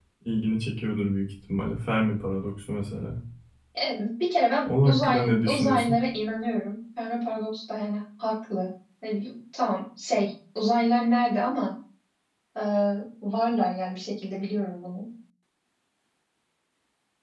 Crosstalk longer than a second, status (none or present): present